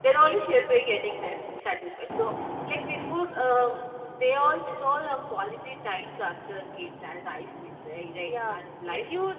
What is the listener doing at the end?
taking over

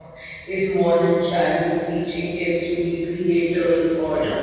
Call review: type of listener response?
listening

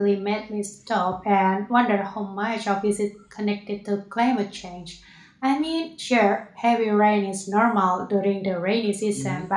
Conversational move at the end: listening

